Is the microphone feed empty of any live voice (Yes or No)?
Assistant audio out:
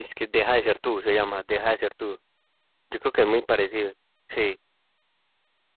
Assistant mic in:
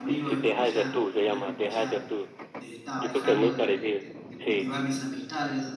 No